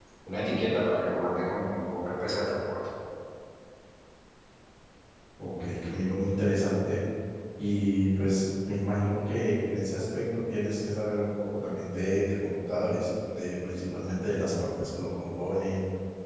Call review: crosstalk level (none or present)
none